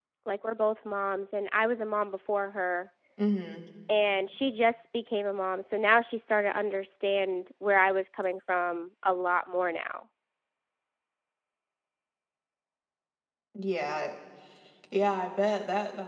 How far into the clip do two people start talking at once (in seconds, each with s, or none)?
none